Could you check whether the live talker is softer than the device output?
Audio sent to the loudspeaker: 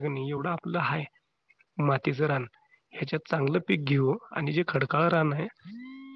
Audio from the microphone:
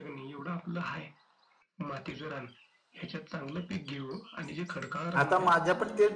No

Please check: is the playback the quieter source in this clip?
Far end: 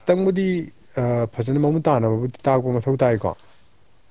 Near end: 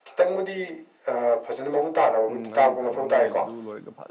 No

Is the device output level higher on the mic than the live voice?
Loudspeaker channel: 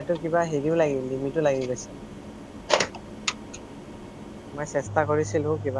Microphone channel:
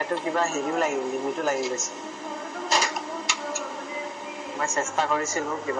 Yes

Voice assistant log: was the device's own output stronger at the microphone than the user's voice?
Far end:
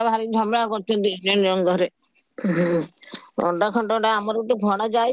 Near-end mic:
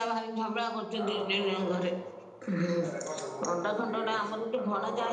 Yes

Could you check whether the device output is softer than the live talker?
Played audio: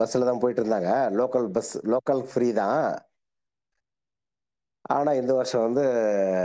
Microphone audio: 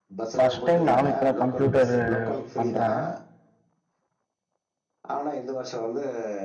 Yes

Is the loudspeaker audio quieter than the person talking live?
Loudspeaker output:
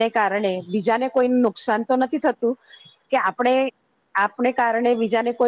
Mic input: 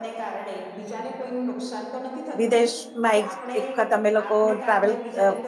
Yes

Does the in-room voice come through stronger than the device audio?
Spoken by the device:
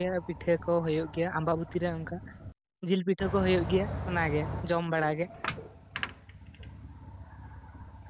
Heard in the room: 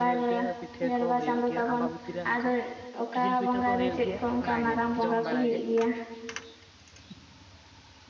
Yes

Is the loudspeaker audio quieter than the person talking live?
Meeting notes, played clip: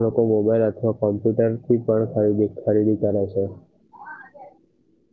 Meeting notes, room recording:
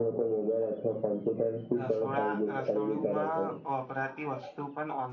No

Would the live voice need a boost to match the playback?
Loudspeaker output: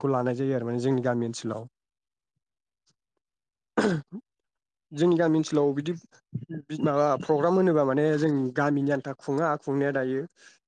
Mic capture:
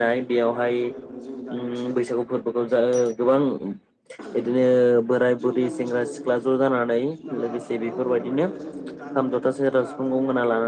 No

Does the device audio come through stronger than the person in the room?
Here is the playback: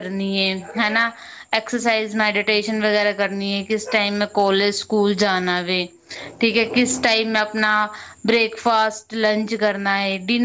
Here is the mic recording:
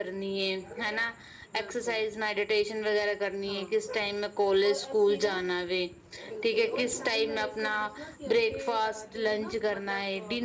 Yes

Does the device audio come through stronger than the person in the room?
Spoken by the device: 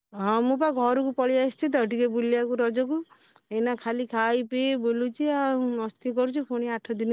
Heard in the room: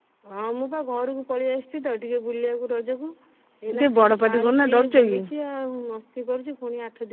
No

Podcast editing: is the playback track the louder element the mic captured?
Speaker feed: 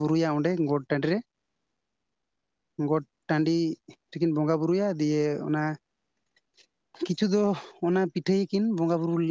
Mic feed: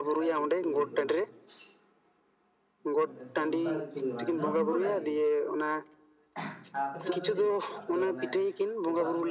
Yes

